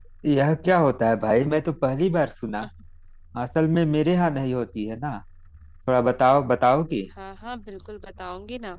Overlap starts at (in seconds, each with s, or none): none